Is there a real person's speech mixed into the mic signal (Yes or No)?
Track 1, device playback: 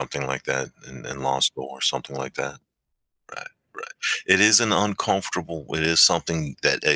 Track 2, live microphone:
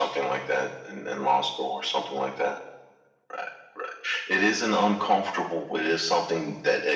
No